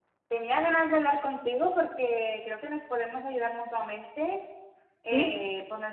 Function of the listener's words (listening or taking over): listening